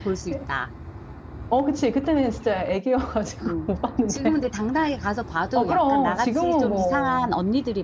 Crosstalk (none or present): present